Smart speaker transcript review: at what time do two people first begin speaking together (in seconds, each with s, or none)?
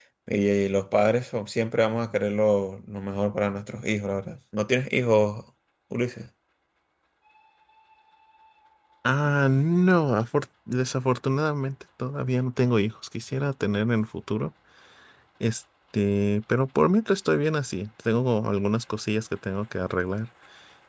none